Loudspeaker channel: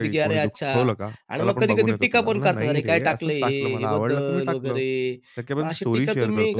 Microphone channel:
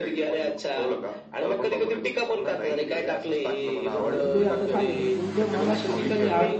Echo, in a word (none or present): present